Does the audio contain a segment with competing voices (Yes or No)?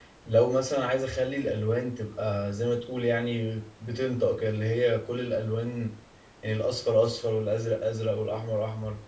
No